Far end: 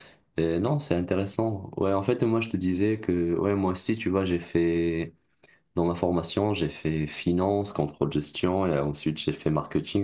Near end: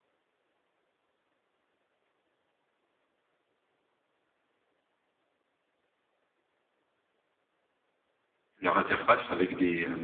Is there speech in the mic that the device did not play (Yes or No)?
Yes